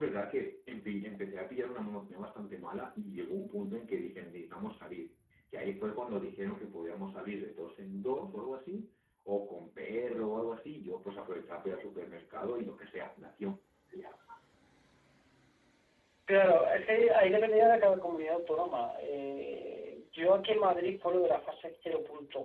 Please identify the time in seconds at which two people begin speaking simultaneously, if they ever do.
none

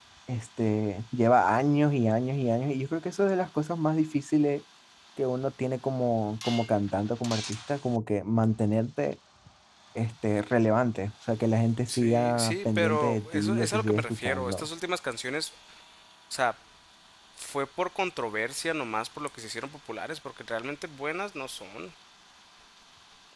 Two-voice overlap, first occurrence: 11.9 s

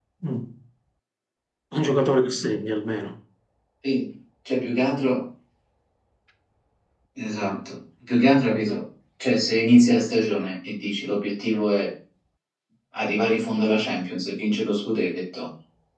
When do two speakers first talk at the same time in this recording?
none

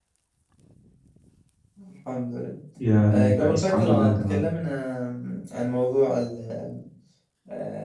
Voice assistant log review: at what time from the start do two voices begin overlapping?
3.1 s

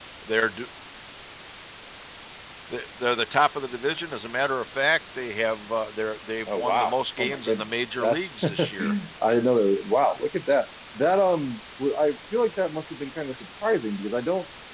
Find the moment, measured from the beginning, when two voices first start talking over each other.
6.5 s

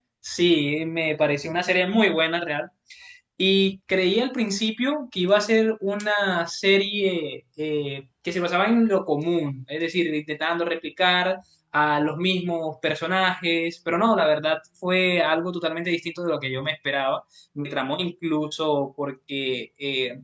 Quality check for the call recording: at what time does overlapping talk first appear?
none

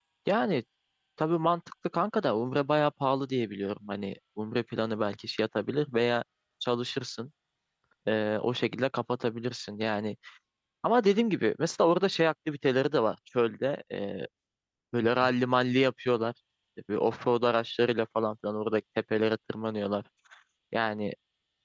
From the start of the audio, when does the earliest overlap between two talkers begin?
none

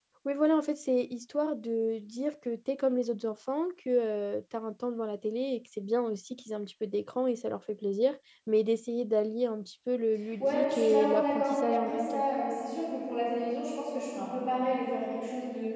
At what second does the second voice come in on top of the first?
10.4 s

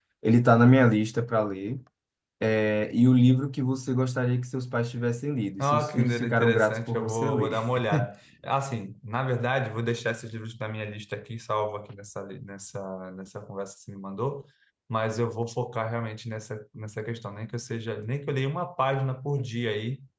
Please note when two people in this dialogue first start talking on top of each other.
5.6 s

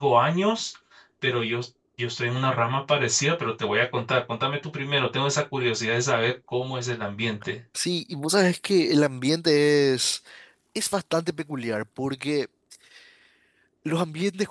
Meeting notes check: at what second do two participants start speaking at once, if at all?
none

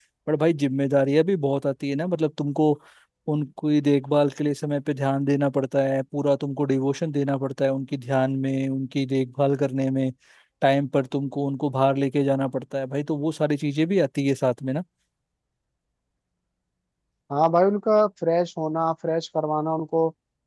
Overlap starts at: none

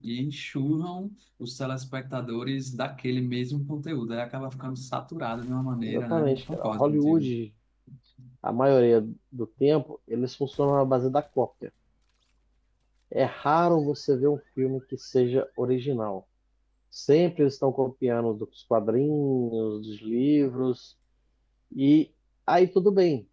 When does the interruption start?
5.8 s

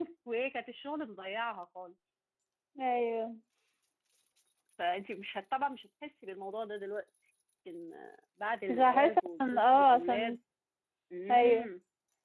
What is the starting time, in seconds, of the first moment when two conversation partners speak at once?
8.7 s

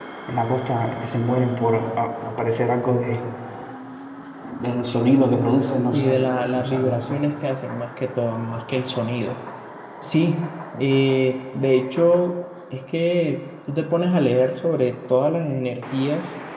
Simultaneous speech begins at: 5.9 s

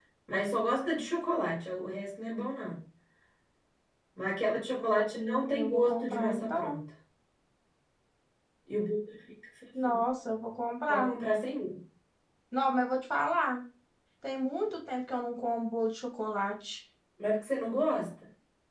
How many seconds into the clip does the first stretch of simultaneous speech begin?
5.2 s

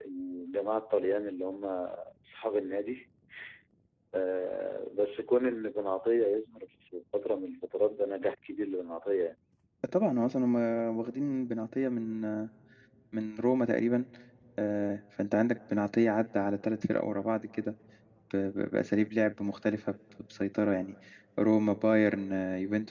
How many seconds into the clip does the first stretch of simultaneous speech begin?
none

